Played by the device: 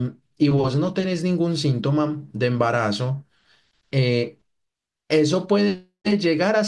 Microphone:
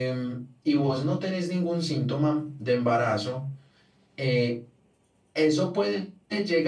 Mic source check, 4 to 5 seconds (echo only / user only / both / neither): echo only